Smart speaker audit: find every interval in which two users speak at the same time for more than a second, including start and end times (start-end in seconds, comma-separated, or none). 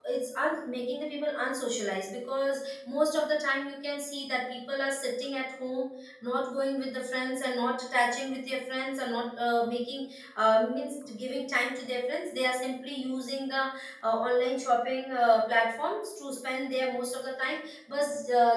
none